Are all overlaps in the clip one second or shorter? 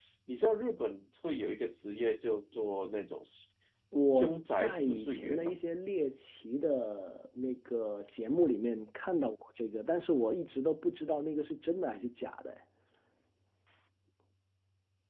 No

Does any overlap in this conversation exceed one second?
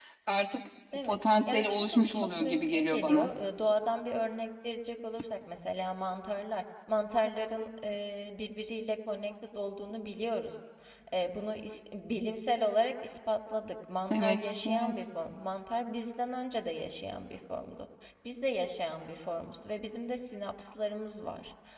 Yes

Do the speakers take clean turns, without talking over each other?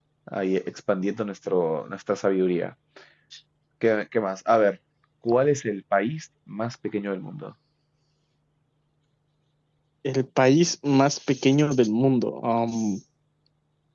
Yes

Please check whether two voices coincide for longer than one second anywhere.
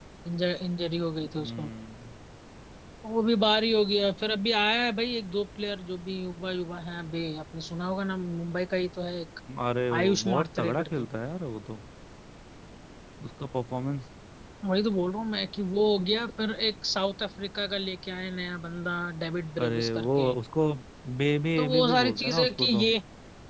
Yes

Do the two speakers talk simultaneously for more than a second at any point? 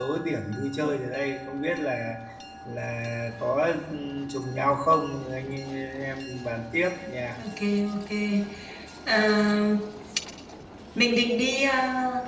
No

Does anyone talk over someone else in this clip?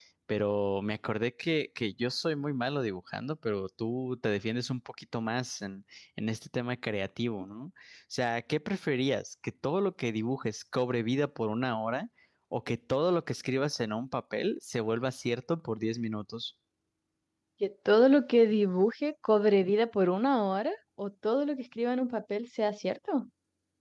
No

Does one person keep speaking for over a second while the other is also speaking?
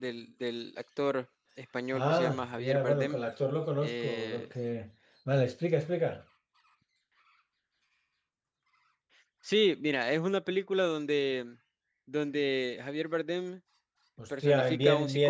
Yes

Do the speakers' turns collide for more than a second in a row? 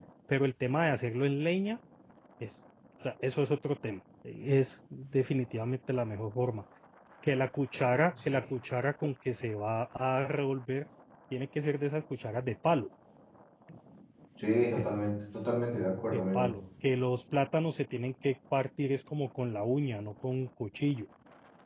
No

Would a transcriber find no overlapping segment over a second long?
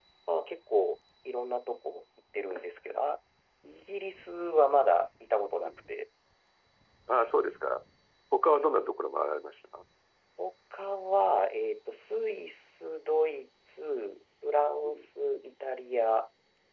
Yes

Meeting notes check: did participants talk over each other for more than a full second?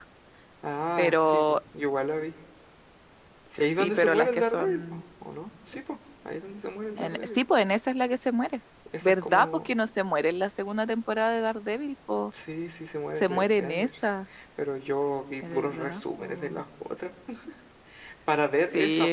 Yes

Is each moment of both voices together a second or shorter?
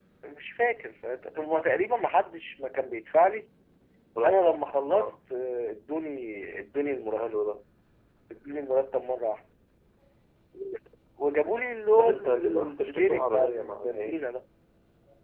No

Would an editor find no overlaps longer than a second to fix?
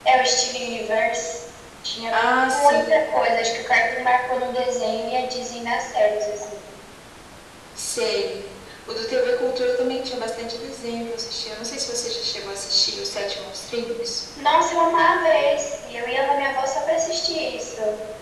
Yes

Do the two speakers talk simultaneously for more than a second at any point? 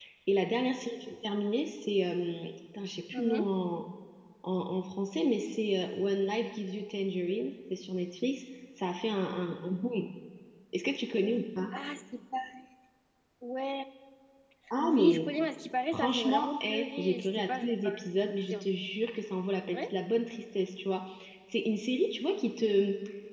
Yes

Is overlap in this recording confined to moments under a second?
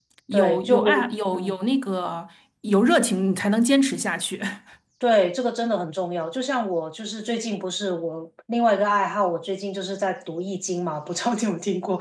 No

